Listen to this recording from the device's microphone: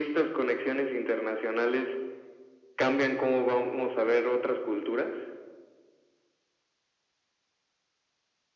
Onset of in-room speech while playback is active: none

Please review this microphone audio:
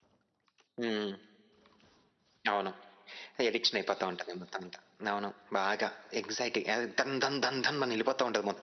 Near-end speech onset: none

